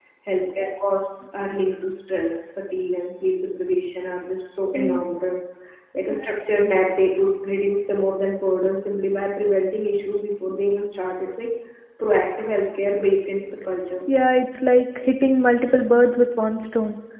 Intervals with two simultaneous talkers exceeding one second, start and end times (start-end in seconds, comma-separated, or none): none